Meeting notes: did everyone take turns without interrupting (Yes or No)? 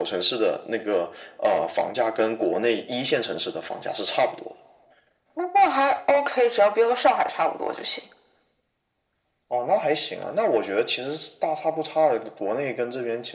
Yes